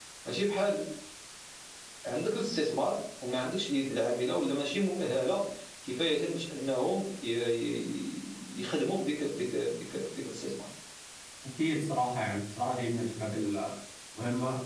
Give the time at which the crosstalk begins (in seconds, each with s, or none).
none